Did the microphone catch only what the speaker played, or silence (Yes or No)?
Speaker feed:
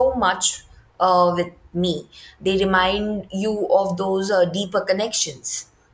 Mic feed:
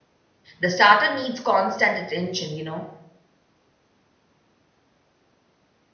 No